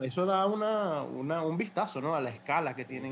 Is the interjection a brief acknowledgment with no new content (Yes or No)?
No